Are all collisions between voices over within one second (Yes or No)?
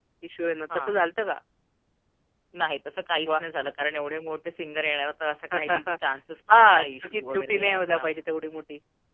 No